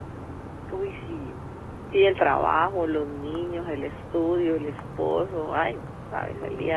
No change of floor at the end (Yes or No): No